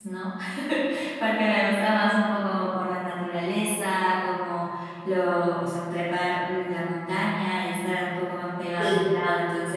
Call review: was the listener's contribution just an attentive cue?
Yes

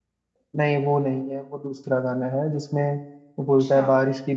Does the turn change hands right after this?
No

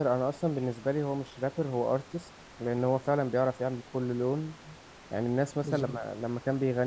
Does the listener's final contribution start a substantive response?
No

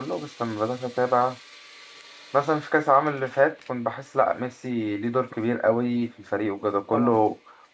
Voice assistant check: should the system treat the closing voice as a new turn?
No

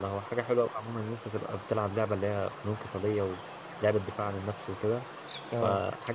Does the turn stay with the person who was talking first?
Yes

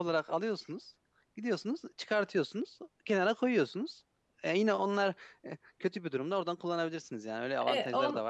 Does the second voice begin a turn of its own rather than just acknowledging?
Yes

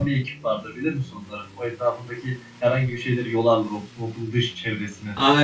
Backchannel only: No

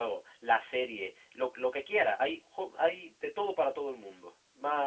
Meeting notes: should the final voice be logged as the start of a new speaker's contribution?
No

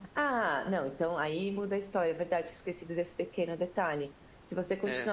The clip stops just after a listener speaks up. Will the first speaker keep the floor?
Yes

